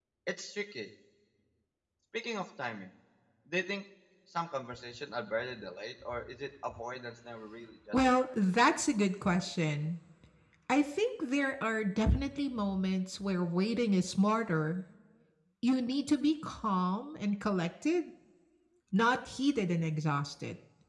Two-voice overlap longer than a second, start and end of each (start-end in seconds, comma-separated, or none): none